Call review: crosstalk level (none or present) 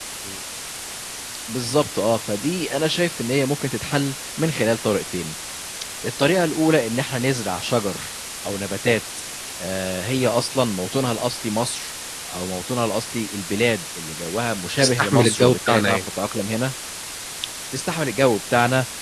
present